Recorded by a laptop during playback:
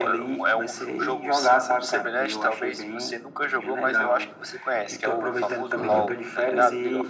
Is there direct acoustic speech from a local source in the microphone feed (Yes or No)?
Yes